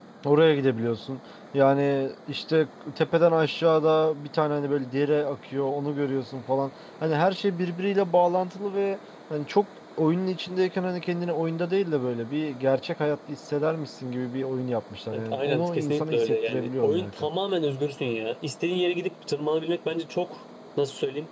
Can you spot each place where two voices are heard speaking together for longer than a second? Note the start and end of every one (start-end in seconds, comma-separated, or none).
15.1-17.3